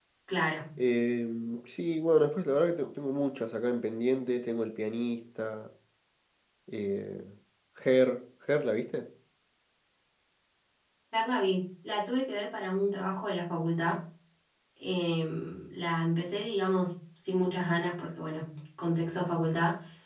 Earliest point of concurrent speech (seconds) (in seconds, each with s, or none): none